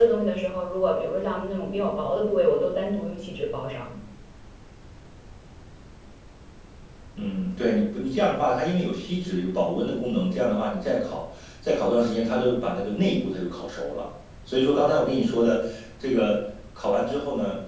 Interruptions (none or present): none